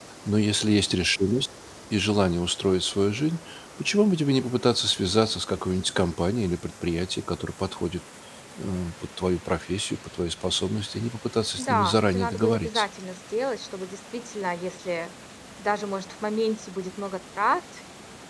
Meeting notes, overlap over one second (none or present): present